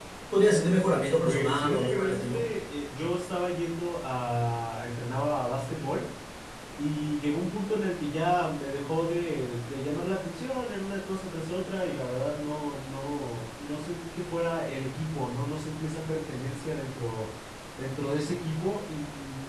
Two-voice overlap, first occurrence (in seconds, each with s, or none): 1.2 s